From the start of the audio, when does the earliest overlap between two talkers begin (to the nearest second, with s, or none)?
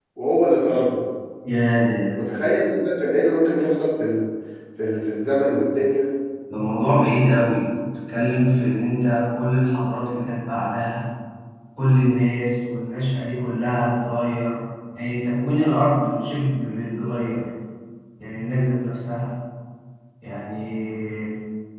none